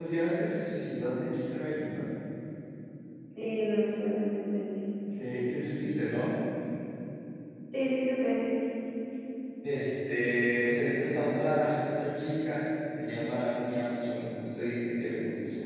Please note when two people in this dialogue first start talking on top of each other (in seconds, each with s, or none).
none